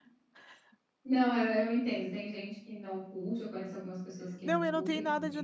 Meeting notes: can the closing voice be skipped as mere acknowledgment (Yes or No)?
No